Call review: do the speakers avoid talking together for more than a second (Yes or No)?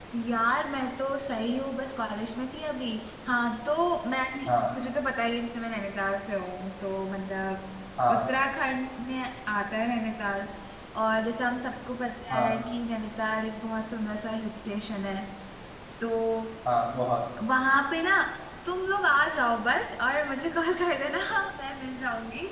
Yes